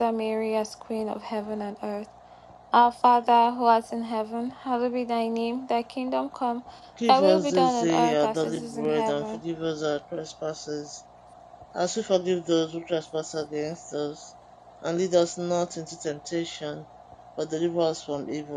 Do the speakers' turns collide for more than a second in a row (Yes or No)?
Yes